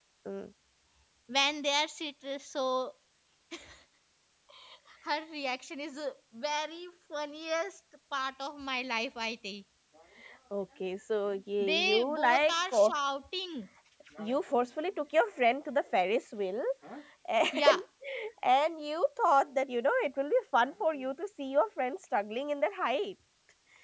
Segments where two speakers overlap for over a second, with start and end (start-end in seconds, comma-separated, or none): 11.6-12.9